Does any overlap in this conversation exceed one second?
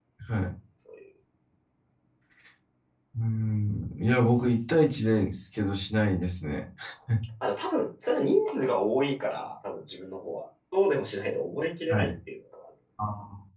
No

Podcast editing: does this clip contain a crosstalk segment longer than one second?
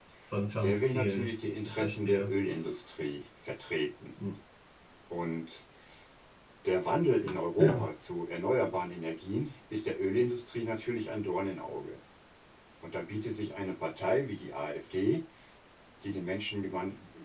Yes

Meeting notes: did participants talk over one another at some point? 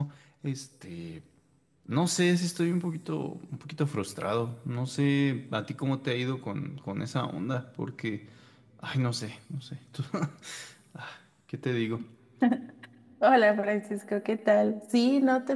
No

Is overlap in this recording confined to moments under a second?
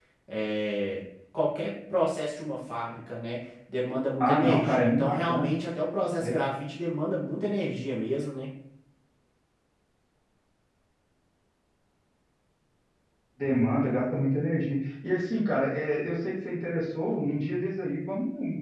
No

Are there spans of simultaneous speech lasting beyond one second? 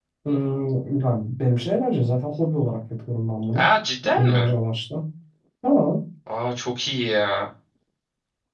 No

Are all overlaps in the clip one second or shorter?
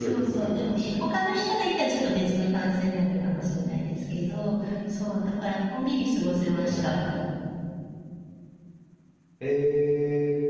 Yes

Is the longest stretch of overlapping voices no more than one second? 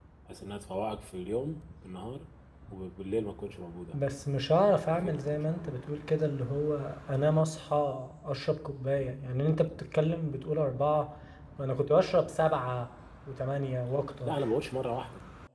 No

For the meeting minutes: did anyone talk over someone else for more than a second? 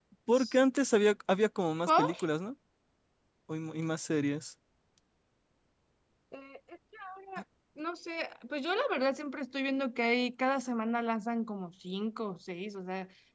No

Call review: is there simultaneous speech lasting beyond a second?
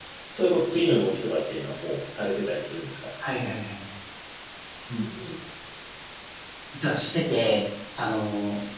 No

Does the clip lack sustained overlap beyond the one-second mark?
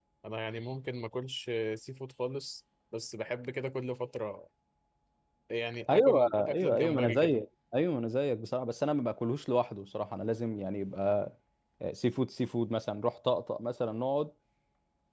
No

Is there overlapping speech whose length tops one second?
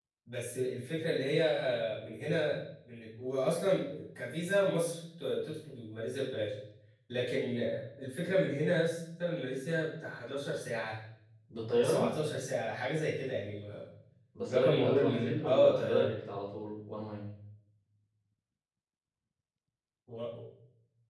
Yes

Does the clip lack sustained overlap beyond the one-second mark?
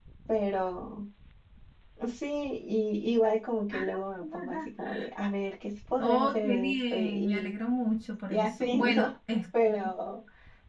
No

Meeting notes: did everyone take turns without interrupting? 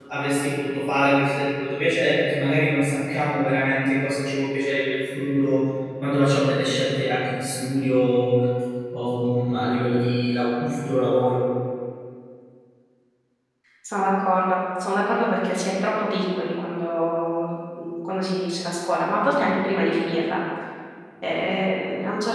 Yes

